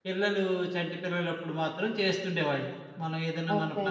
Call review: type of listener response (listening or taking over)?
listening